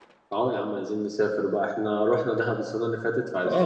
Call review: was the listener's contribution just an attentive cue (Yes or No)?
No